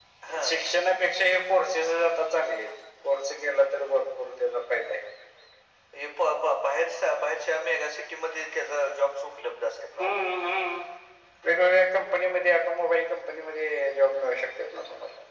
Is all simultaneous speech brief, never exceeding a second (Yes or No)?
Yes